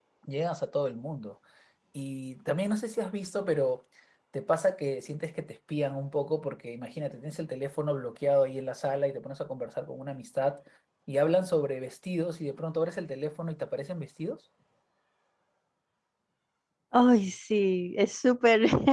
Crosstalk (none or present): none